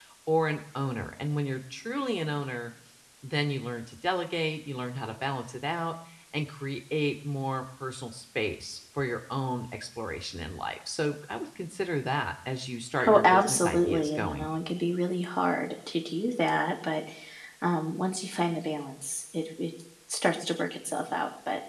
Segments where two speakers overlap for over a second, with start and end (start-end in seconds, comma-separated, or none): 13.1-14.5